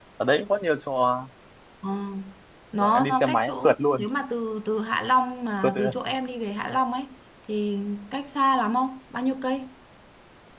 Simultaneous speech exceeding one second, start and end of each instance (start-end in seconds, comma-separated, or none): 2.8-4.0